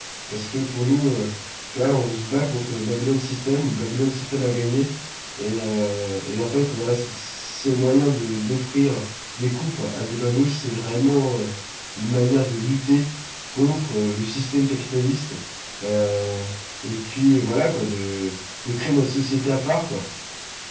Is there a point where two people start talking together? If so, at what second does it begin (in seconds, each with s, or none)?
none